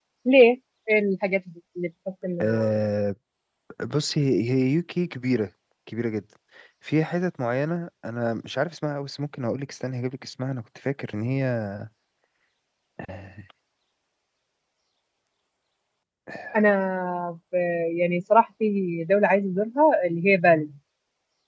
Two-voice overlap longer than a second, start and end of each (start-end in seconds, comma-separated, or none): none